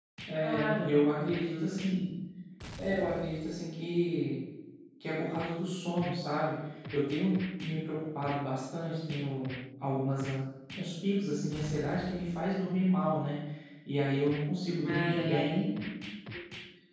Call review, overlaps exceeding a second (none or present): present